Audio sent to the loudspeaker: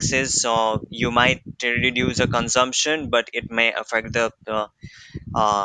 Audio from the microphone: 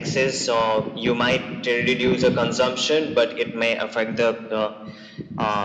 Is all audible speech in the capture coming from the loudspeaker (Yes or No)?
Yes